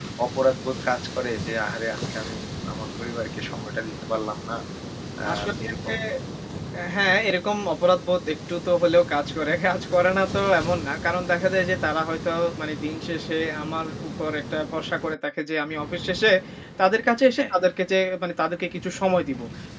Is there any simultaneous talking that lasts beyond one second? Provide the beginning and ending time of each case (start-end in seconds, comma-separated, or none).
none